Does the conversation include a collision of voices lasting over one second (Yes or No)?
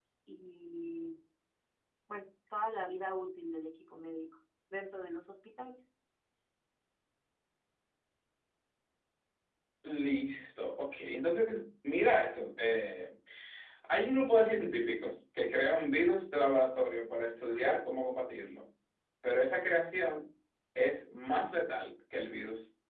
No